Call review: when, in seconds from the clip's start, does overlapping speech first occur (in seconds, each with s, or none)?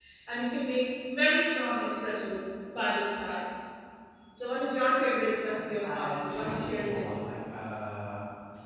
5.5 s